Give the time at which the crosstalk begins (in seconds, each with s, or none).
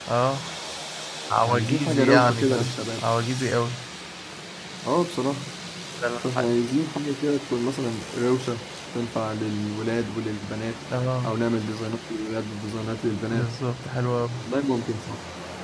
1.4 s